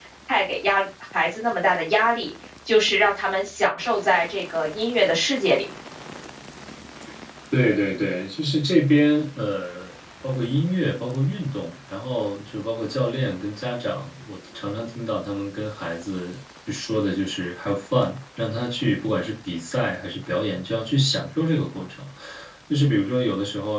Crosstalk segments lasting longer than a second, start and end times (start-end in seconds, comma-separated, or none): none